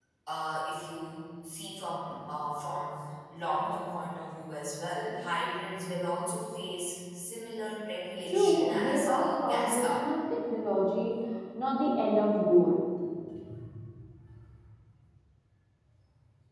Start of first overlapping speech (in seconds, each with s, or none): 8.3 s